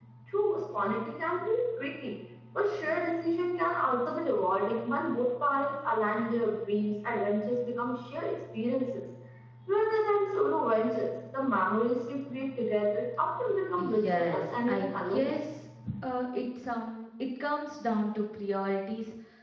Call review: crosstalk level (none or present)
present